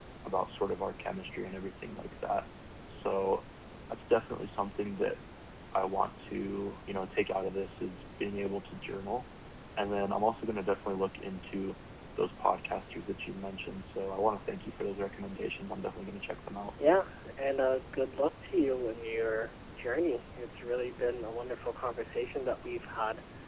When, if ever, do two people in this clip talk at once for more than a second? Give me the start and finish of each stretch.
none

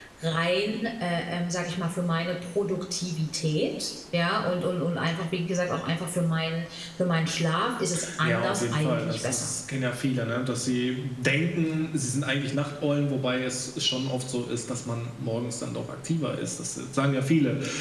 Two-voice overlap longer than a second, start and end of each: 8.2-9.5

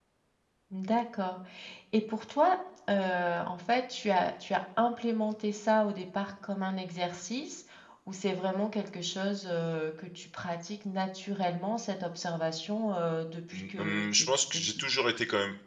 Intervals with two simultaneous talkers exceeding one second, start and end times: 13.5-14.8

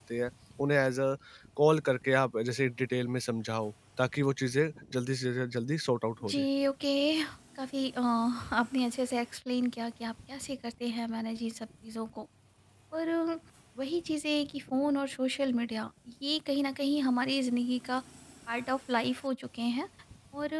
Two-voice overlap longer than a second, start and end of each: none

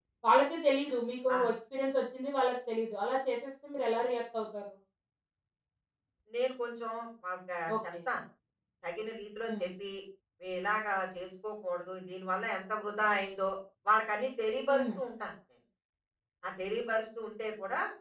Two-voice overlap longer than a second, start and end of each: none

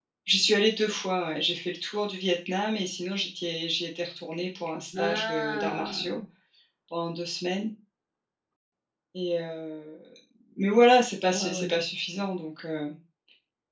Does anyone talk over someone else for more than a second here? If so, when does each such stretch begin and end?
5.0-6.2

